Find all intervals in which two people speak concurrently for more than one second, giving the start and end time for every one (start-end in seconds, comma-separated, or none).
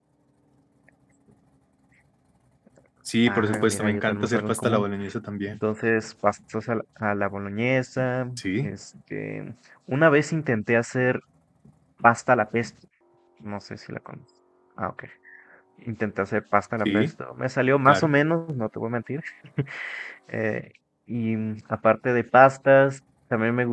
3.3-4.8